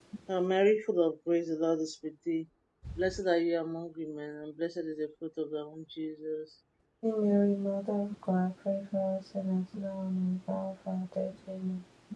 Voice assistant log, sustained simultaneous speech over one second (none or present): none